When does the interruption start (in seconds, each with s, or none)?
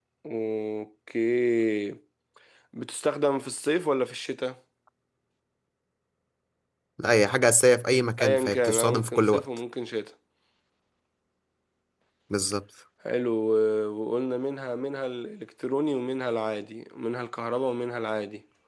8.2 s